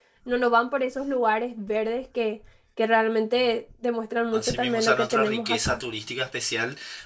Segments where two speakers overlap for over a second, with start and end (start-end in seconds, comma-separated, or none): 4.3-5.8